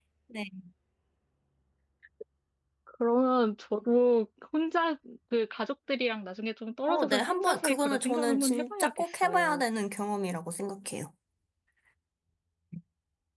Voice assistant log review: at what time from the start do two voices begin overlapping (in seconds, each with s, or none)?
6.9 s